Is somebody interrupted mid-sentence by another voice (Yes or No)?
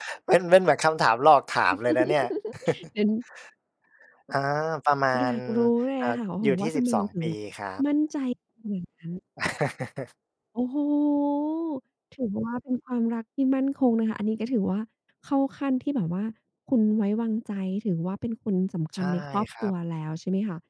Yes